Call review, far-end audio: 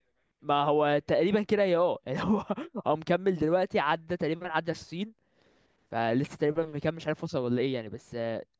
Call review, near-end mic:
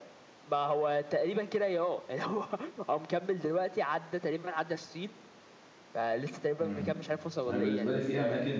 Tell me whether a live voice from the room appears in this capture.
Yes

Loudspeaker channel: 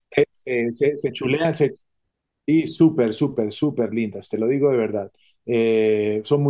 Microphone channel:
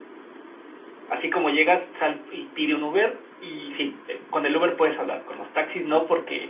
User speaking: Yes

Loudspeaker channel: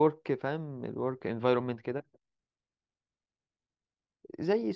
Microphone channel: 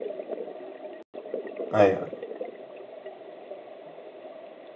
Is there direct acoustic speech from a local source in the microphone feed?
Yes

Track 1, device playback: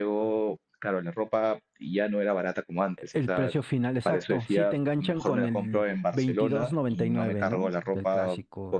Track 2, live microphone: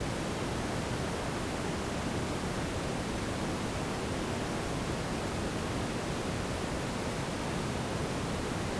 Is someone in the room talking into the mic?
No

